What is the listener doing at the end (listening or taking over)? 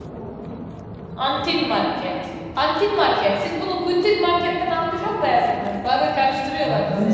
taking over